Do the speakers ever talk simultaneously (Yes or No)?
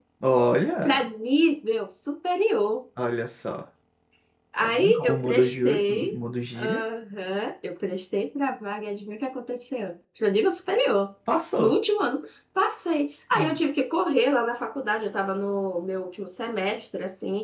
Yes